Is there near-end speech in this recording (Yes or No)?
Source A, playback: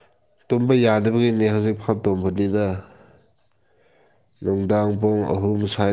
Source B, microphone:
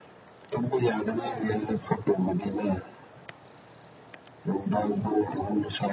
Yes